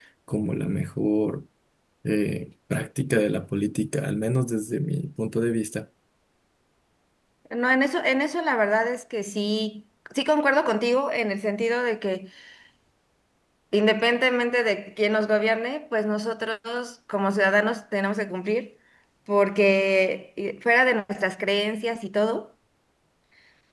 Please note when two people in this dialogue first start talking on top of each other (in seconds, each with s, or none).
none